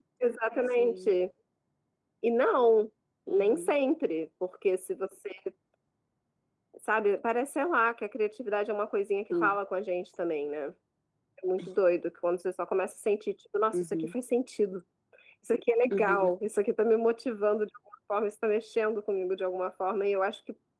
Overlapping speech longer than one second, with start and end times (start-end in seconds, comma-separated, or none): none